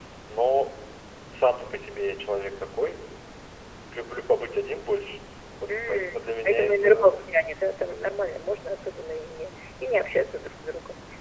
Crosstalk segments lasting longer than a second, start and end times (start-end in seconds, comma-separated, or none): 5.7-7.2